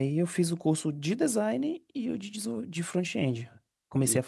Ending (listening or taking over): taking over